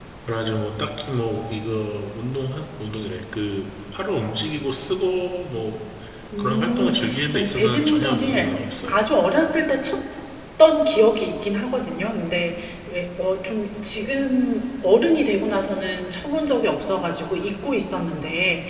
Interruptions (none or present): present